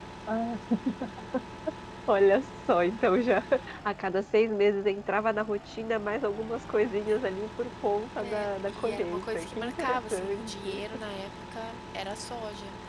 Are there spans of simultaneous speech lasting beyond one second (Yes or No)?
Yes